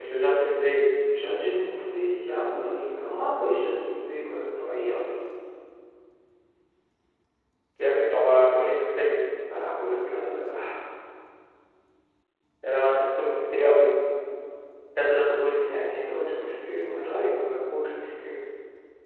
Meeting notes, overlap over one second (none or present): none